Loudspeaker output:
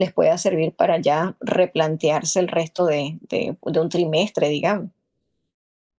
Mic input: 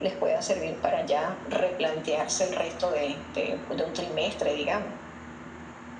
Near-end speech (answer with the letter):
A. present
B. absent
B